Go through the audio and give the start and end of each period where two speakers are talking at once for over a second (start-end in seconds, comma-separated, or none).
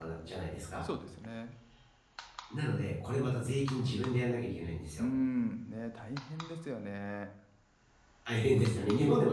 none